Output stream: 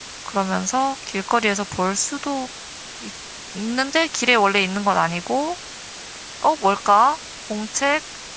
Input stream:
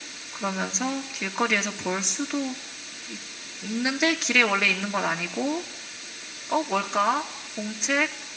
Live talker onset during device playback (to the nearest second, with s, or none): none